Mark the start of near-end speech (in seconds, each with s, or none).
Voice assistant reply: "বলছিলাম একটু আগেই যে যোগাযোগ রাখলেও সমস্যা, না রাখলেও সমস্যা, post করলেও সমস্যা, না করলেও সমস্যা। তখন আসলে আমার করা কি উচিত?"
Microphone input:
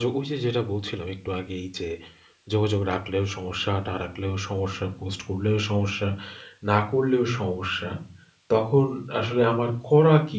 none